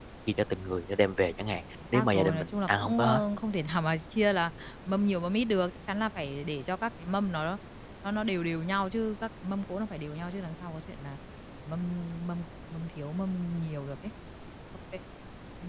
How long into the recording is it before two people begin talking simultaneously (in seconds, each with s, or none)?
1.8 s